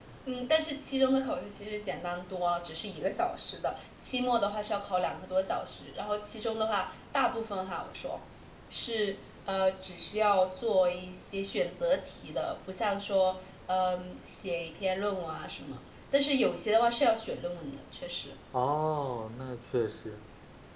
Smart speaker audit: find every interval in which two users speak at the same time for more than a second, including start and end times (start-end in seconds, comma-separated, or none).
none